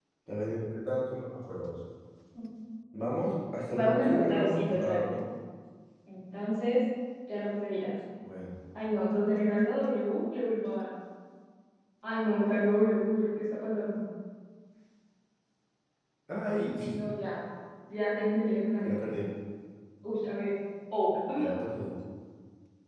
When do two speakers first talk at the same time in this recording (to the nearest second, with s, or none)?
4 s